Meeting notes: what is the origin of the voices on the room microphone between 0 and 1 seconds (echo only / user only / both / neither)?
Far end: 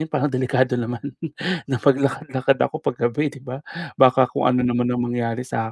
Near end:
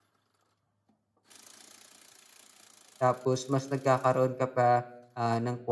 neither